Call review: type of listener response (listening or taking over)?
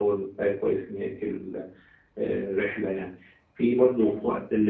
listening